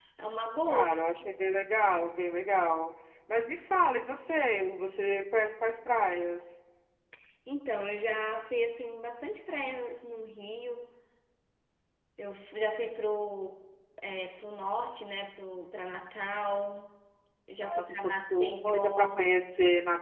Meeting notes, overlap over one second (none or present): present